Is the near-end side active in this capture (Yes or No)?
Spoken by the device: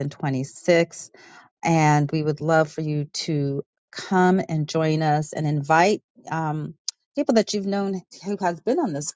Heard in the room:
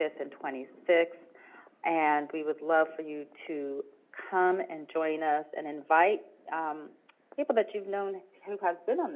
No